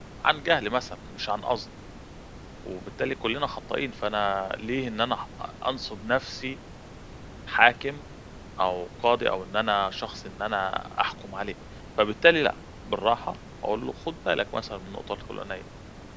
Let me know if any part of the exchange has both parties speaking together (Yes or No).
No